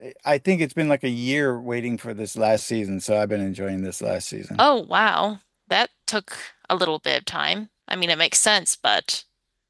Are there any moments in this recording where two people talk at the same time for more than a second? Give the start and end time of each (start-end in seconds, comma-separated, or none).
none